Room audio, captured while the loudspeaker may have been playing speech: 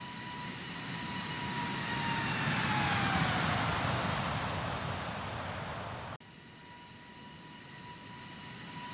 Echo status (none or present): none